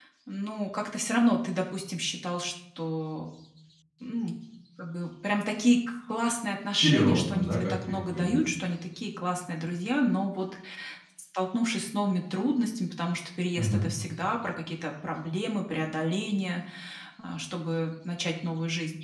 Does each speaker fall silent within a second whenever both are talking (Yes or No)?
No